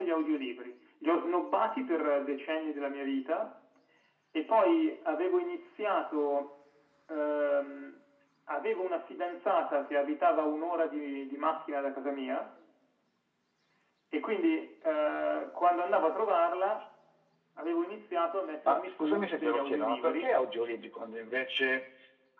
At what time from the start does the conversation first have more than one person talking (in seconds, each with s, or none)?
18.4 s